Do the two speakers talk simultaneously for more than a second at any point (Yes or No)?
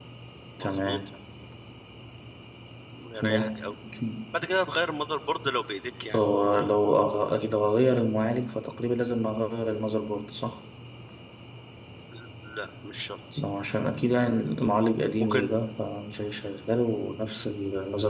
No